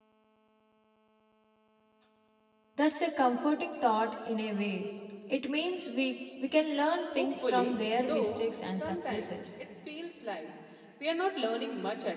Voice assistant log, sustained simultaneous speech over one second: present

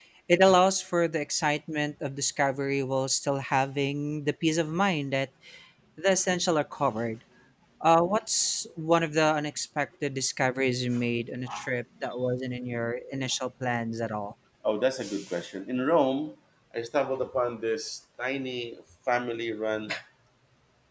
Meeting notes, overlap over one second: none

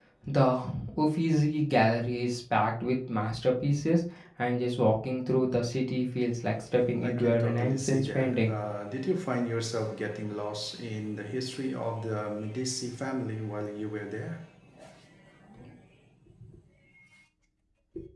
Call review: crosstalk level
present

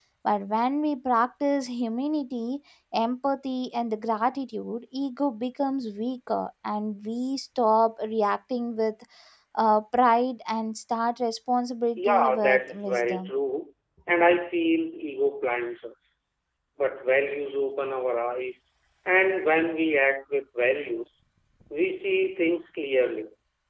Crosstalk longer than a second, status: present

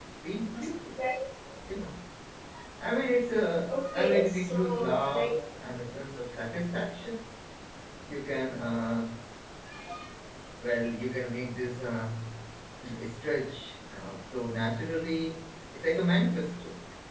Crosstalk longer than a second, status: present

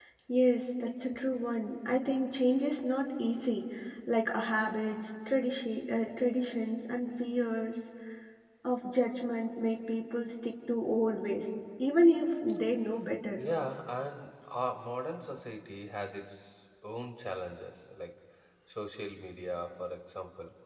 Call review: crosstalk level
none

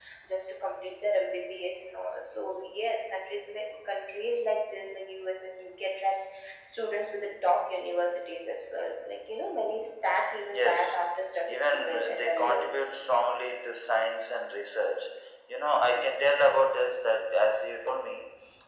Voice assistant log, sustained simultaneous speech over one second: present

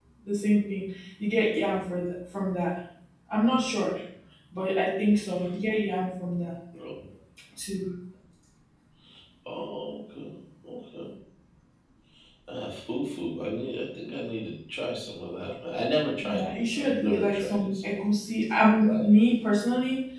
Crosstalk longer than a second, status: present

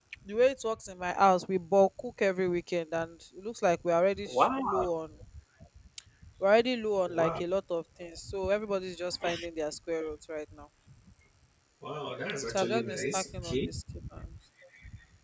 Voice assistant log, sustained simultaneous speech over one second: present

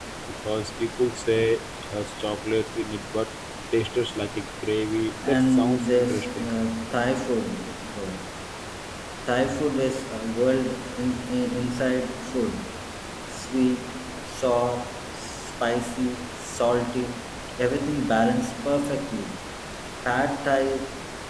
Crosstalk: present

